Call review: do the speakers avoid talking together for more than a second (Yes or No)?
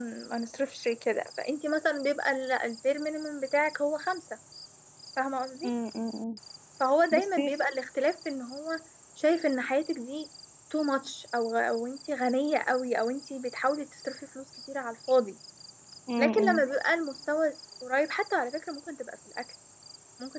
Yes